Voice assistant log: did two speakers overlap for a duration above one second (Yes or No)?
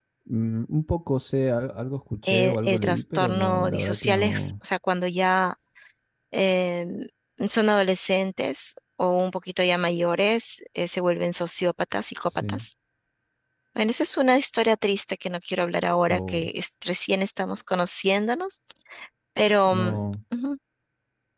Yes